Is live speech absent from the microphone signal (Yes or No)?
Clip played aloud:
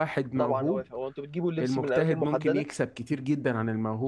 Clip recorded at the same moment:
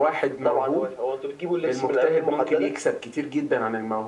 Yes